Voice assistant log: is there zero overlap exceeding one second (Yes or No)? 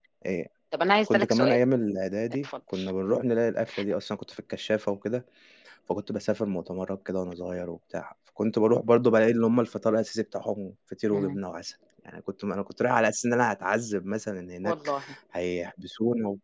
Yes